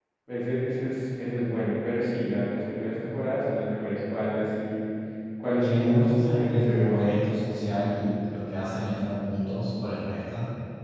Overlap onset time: 5.6 s

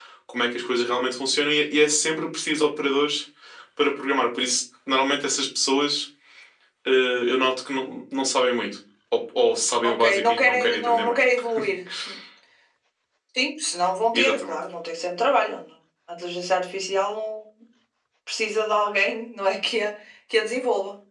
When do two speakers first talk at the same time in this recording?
9.8 s

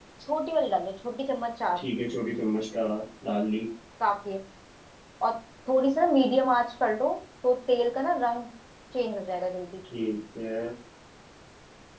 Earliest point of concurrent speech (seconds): none

